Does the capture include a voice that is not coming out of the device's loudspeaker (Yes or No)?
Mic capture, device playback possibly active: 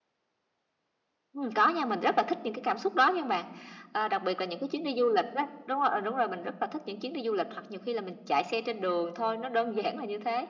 No